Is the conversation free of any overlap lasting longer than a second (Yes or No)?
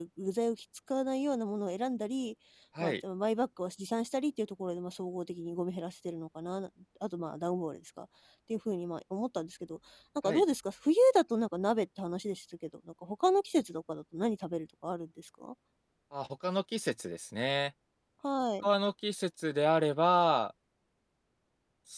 Yes